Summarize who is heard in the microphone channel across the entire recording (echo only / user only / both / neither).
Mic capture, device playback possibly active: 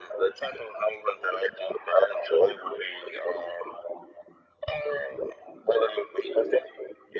echo only